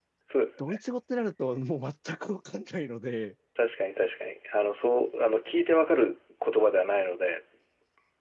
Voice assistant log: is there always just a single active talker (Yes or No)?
Yes